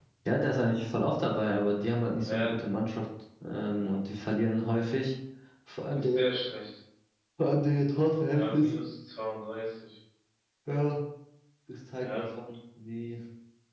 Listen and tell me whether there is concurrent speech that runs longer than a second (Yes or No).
No